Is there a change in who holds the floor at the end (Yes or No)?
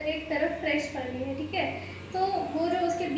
No